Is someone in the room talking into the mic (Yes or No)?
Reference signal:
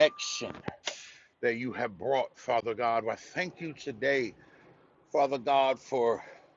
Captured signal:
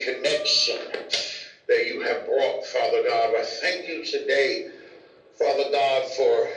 No